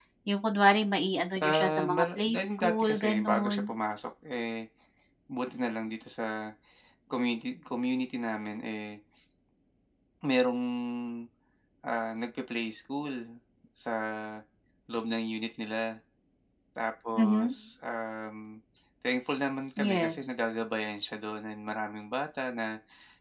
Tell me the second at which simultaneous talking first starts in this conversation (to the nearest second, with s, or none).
1 s